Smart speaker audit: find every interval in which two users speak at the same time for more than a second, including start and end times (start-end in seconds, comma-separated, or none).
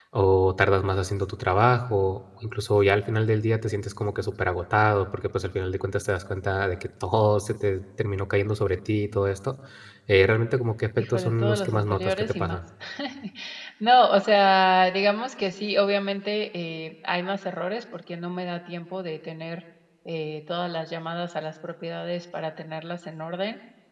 11.0-12.6